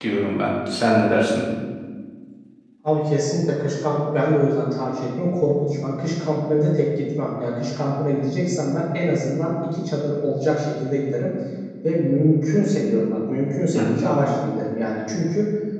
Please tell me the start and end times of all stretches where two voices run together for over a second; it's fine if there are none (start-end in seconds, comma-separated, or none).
none